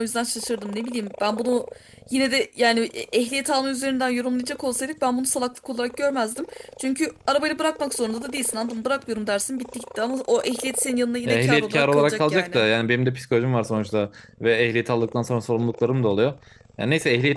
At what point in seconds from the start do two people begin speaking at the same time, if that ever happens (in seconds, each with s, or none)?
11.2 s